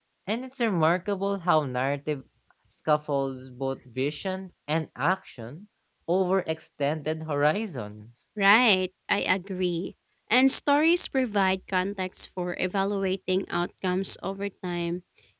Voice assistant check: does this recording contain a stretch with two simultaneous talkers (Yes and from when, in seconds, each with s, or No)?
No